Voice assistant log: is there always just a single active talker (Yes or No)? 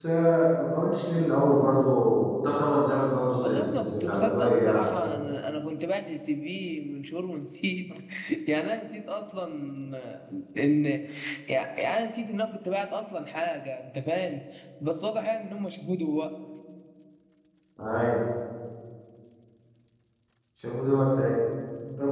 No